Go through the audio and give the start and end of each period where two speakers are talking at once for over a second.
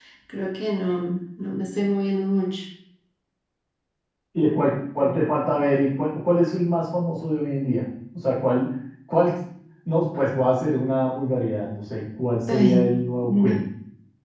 none

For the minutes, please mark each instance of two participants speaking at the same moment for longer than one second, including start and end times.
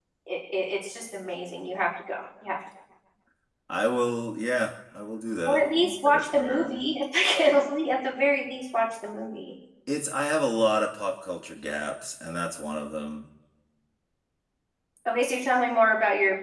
5.5-6.9

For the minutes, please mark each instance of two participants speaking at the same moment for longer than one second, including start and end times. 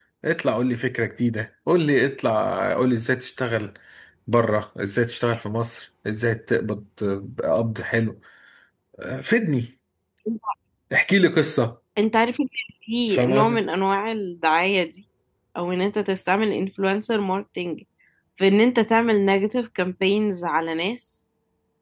none

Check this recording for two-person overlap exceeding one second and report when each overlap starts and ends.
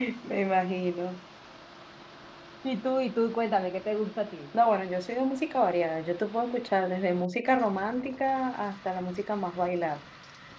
none

